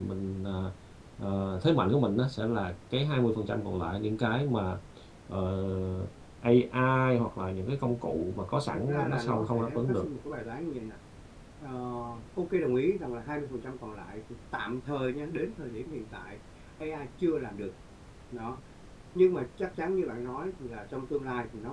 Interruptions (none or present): present